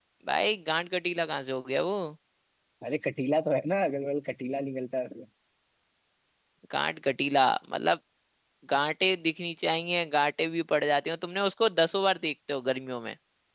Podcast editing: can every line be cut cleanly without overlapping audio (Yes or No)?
Yes